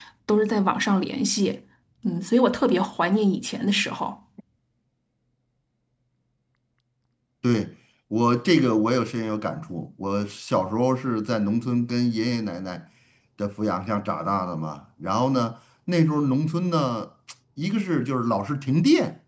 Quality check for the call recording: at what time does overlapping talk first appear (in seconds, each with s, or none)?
none